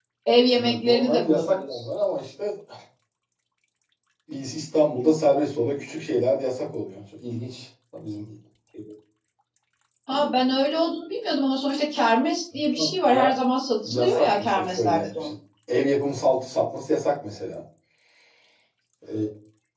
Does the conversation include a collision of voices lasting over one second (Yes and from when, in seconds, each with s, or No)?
Yes, from 0.6 s